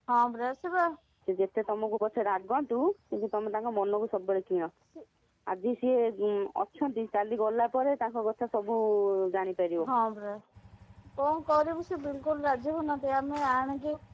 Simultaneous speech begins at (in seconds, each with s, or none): none